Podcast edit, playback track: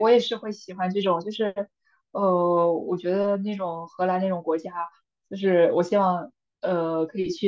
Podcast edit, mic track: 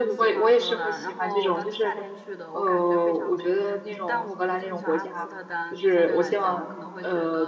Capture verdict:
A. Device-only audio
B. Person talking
B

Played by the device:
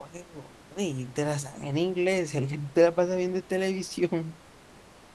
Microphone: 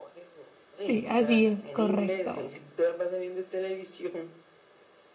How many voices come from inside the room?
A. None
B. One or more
B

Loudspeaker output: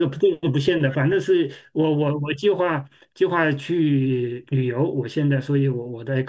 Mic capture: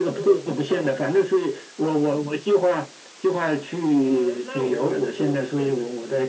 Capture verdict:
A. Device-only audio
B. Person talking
B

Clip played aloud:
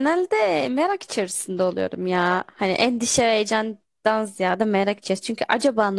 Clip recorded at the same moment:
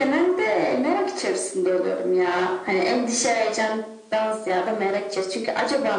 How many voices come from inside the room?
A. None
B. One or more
A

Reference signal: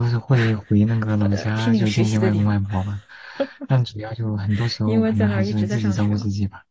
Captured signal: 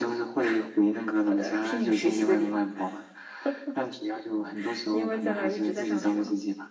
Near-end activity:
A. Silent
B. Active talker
A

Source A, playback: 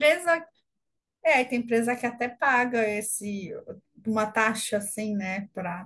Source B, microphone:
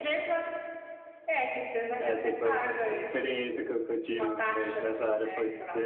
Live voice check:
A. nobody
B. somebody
B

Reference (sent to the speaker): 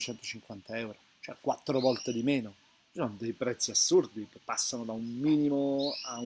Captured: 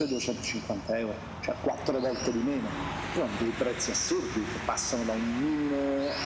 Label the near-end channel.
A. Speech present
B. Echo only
B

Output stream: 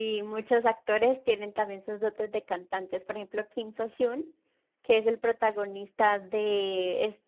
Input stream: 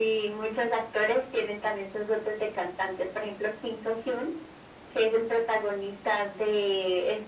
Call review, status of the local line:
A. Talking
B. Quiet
B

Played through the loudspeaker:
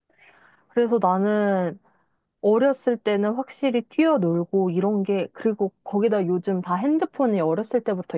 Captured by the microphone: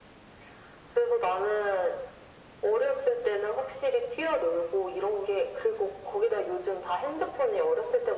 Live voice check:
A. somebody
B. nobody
B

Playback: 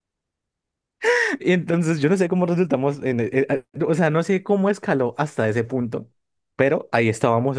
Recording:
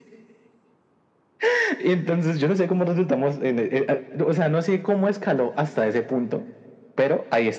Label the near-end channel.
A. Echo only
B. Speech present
A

